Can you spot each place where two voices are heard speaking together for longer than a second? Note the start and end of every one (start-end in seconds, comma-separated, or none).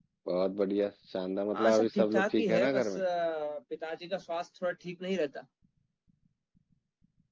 1.5-3.0